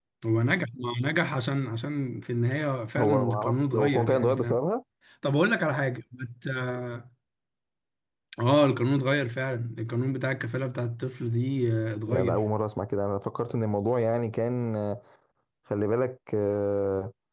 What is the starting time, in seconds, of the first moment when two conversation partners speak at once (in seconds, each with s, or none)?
3.0 s